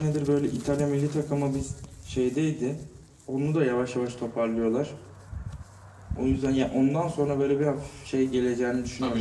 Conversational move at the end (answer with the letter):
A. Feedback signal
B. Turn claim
B